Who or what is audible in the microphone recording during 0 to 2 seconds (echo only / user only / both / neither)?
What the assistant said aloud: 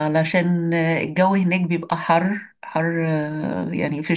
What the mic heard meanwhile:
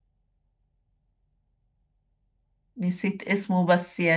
neither